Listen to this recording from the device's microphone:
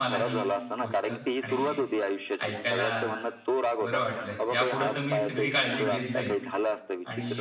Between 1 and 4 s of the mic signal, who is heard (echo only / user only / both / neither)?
both